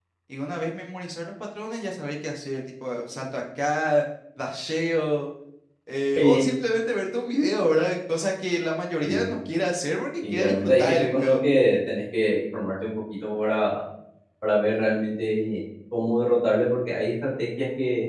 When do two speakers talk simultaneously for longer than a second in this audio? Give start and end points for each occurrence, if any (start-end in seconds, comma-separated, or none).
10.2-11.4